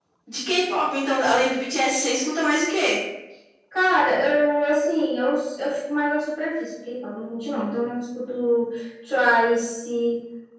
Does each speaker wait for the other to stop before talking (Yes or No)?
Yes